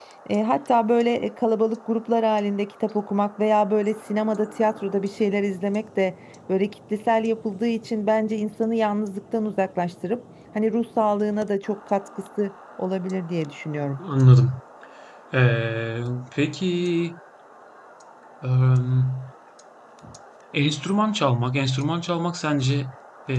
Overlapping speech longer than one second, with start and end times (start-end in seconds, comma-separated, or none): none